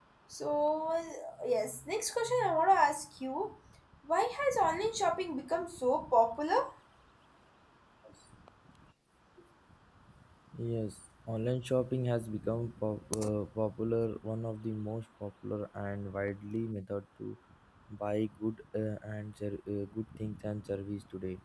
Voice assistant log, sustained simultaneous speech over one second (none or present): none